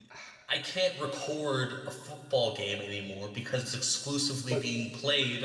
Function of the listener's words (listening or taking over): listening